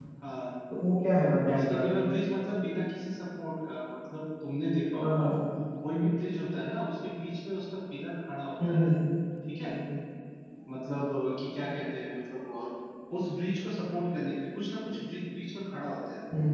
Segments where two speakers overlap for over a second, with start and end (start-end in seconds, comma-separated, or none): none